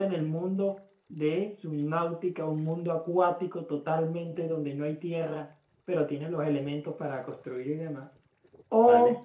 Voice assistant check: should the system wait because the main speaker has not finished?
Yes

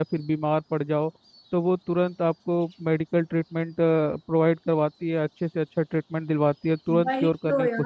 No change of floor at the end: No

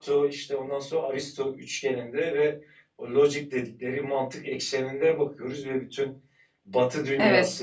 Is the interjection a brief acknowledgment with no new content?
Yes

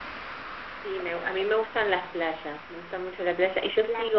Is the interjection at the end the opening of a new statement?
No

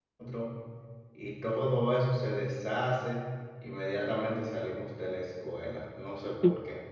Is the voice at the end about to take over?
Yes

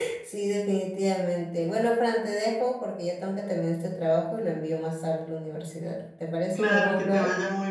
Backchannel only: No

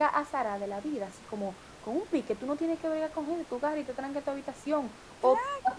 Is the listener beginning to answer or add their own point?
No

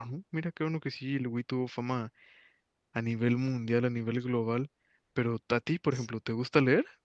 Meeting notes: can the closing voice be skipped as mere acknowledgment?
Yes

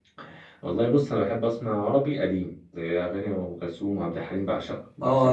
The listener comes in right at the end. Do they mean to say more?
Yes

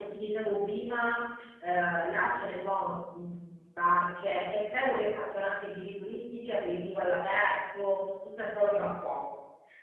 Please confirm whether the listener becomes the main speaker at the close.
No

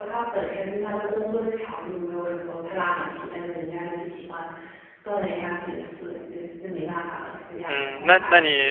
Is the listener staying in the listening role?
No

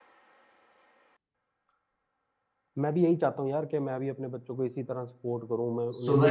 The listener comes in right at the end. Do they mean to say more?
Yes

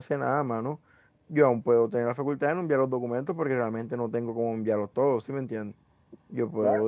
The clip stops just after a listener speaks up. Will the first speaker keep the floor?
No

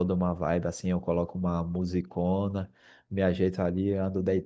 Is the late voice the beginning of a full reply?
No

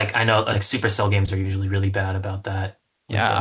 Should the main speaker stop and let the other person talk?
Yes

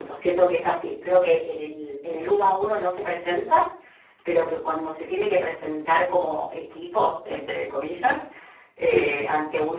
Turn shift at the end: No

